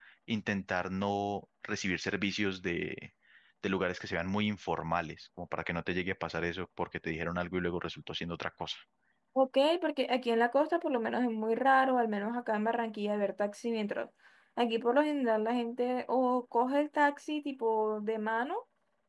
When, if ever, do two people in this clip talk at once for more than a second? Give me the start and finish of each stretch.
none

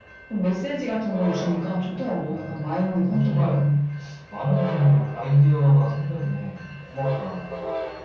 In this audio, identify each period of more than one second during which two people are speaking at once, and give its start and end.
2.1-3.7

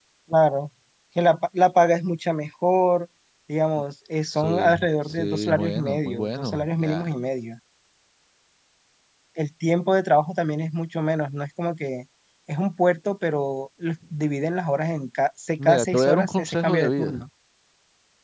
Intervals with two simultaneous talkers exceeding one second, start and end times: 4.2-7.1, 15.6-17.2

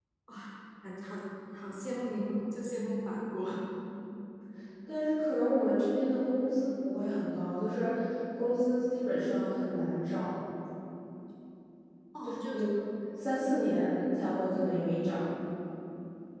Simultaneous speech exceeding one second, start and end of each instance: none

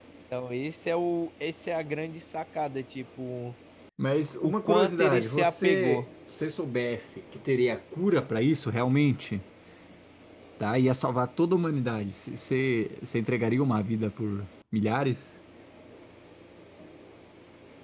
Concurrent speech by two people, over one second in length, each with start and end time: 4.4-6.0

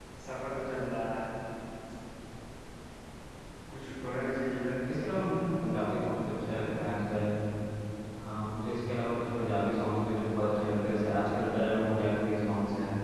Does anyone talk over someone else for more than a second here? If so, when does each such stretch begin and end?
none

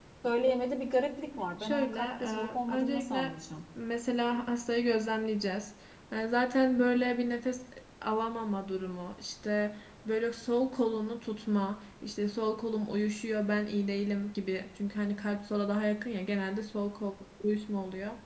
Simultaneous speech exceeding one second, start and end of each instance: 1.6-3.4

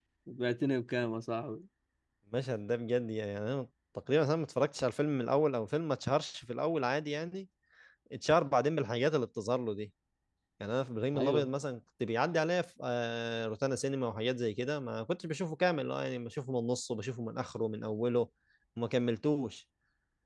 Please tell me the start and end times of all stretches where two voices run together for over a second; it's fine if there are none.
none

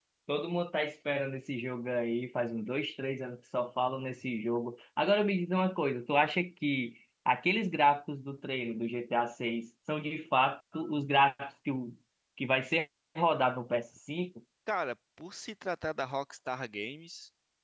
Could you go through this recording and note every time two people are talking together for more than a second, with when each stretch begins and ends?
none

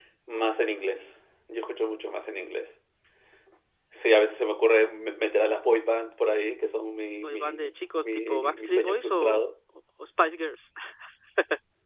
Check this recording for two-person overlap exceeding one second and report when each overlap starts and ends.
7.2-9.4

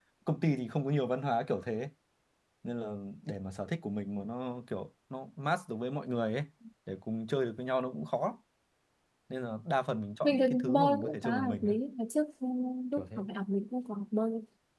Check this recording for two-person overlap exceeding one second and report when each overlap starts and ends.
10.2-11.7

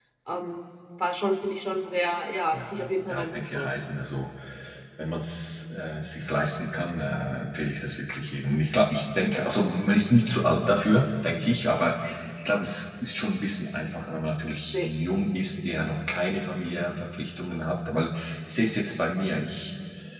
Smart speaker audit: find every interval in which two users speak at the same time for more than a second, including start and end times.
2.5-3.8

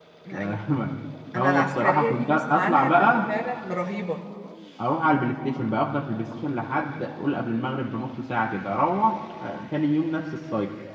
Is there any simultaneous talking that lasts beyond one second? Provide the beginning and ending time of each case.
1.4-3.2

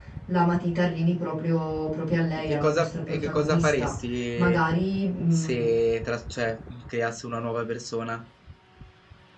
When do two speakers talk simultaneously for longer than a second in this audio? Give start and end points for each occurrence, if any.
2.4-4.0

